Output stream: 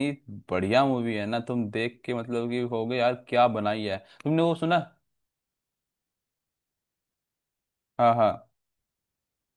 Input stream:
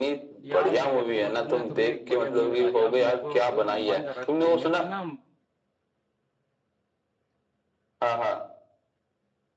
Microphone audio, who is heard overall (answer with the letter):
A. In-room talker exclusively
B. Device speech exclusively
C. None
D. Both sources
D